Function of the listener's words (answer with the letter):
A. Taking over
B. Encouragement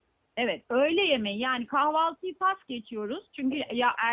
B